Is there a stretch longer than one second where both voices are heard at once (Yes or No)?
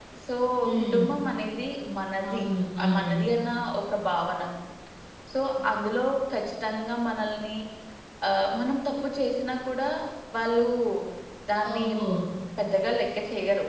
No